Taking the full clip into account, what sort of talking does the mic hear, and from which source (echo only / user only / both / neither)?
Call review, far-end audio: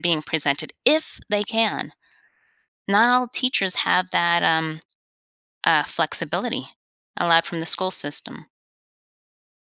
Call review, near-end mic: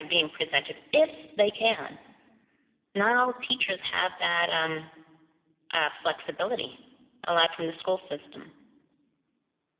echo only